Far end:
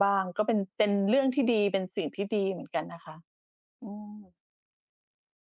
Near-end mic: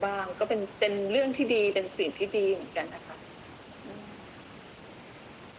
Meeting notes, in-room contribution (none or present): none